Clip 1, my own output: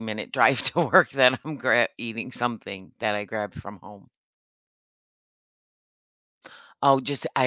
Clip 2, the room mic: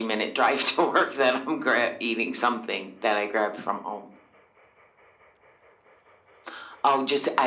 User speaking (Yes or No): No